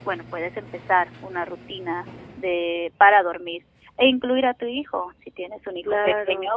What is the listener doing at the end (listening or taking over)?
listening